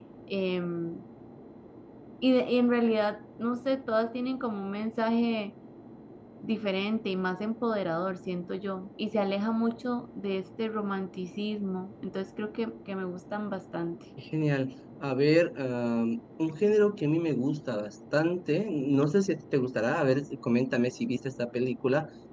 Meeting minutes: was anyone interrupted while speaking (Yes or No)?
No